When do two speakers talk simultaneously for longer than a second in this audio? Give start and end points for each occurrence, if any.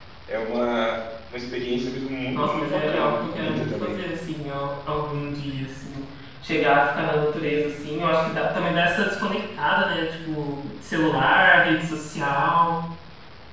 2.3-4.0

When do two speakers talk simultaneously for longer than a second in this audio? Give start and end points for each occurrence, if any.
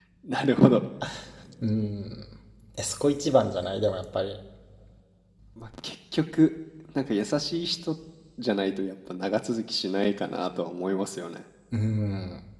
none

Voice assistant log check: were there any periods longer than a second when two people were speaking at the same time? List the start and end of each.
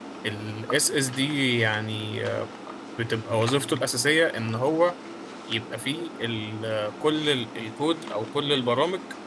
none

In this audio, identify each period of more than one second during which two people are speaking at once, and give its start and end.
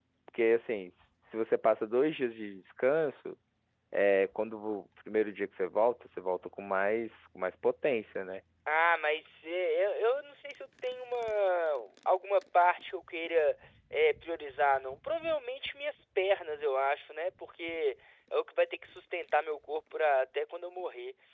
none

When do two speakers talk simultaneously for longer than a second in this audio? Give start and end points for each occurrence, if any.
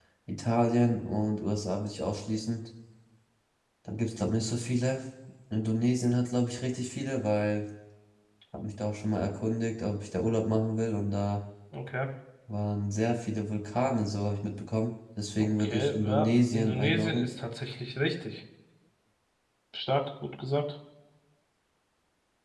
15.4-17.3

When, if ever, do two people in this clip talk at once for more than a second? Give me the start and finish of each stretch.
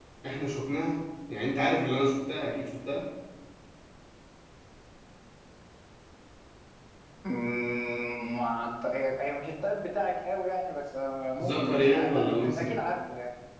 11.4-12.7

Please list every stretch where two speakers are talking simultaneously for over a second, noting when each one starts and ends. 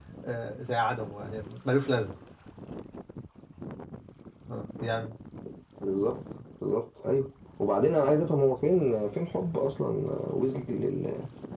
none

